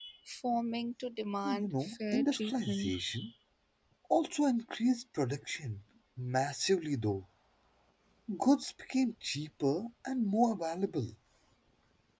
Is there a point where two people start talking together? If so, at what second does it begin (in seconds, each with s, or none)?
1.4 s